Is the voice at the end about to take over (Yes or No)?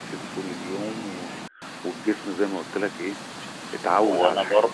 Yes